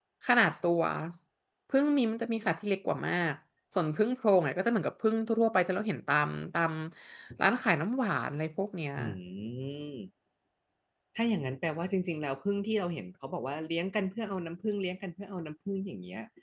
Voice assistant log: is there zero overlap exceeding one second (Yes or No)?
Yes